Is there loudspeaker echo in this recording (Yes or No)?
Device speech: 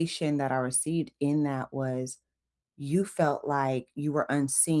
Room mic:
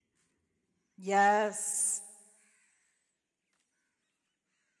No